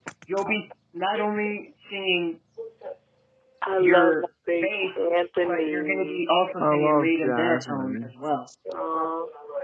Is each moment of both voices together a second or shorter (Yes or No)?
No